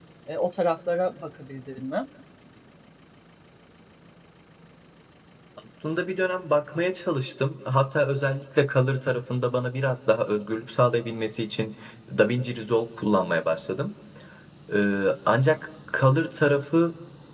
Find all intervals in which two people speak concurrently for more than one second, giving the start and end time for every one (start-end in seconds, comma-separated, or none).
none